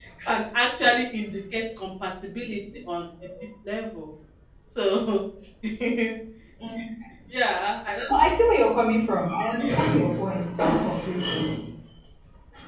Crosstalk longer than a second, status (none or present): none